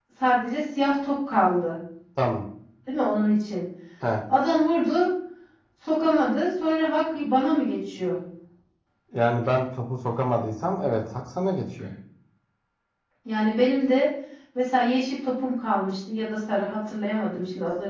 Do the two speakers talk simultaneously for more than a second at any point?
No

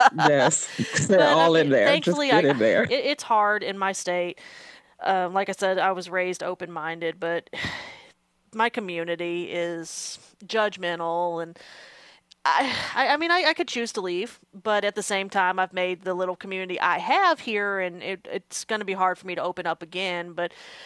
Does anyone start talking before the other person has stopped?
Yes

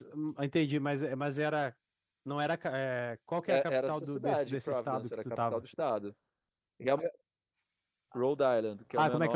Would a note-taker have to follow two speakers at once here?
Yes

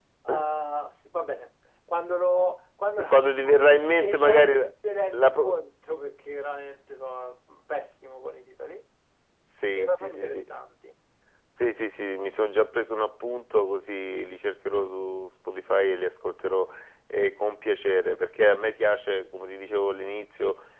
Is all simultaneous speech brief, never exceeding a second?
No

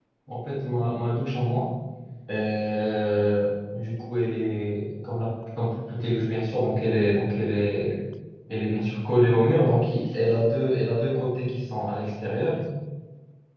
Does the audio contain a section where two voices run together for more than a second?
No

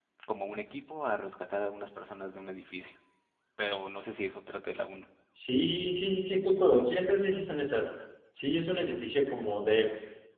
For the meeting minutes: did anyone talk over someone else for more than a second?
No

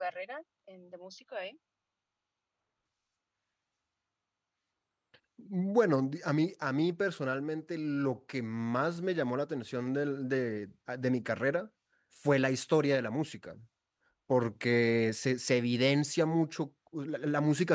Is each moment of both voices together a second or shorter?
Yes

